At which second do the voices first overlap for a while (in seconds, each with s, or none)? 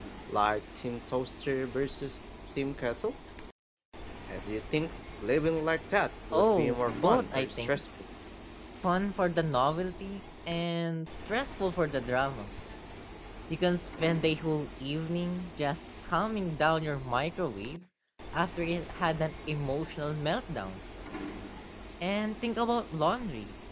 6.3 s